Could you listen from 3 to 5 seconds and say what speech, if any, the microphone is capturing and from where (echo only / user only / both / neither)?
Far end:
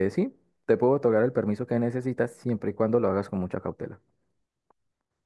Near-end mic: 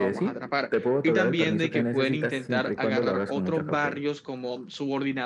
both